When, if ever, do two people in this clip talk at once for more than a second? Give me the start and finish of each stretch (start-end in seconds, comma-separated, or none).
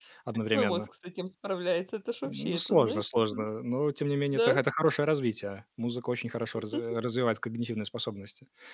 2.2-3.5